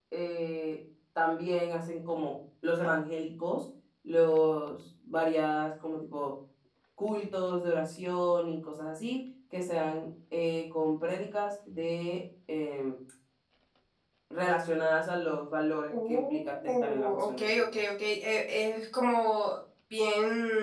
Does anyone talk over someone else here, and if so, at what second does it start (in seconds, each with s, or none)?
15.9 s